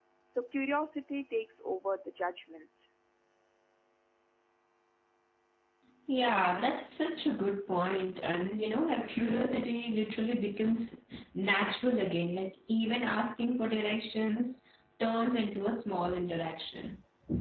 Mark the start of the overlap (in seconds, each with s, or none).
none